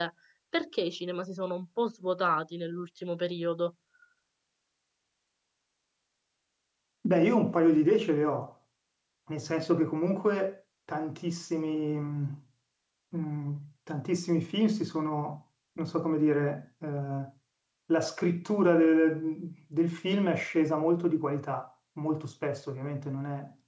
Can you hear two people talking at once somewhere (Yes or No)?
No